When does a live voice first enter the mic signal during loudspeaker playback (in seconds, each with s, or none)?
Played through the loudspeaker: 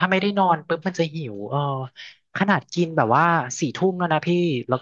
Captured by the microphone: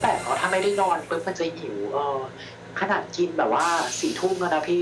none